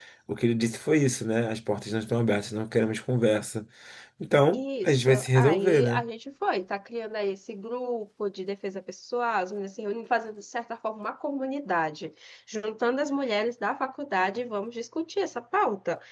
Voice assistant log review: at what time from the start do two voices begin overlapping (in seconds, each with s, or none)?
4.5 s